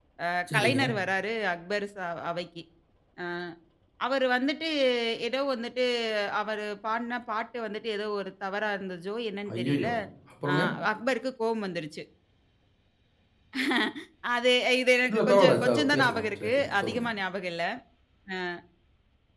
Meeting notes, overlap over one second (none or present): present